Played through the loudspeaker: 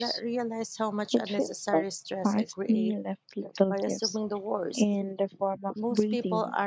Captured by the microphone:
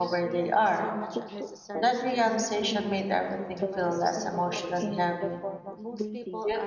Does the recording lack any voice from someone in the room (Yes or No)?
No